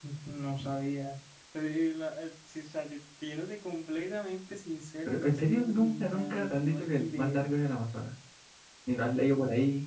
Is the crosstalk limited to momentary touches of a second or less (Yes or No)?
No